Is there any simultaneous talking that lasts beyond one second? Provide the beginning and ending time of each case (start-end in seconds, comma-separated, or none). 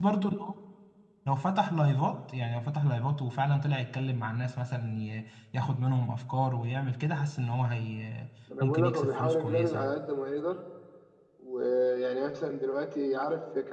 8.6-9.9